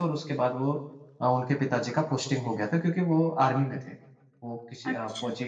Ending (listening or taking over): listening